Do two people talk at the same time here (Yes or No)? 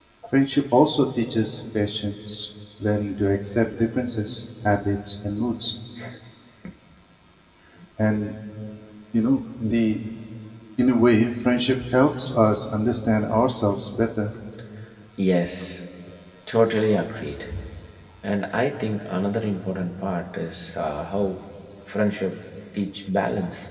No